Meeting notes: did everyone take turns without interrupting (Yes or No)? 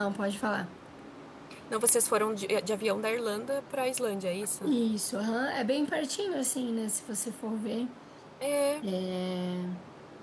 Yes